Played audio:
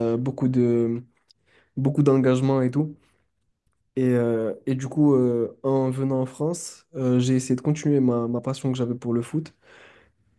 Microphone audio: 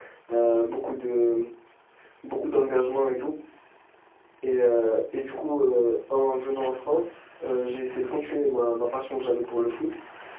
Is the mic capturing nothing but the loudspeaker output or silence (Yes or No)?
Yes